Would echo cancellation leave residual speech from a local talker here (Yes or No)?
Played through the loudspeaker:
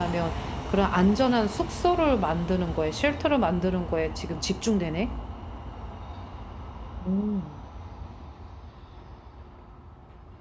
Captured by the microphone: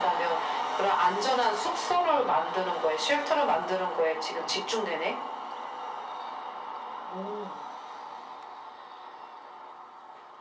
No